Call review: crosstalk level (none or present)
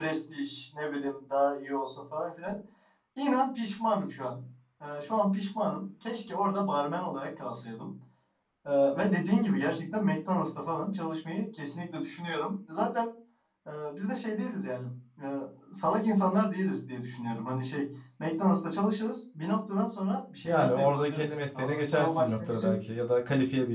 present